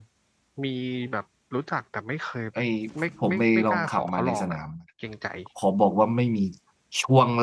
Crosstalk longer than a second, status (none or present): present